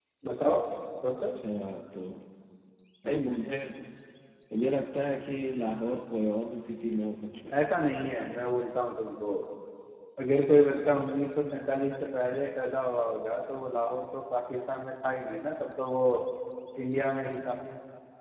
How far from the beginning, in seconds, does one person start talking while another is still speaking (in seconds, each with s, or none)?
none